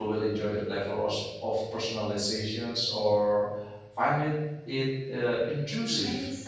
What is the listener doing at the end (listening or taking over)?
taking over